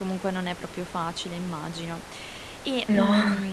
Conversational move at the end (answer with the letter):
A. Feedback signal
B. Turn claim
A